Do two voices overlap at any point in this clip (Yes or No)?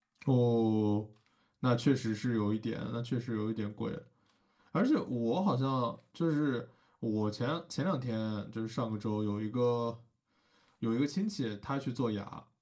No